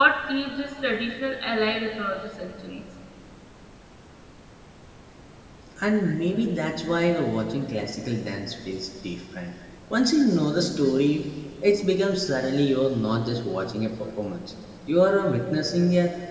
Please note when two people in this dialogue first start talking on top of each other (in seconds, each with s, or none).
none